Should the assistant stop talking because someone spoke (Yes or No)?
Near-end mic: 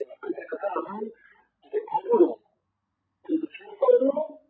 No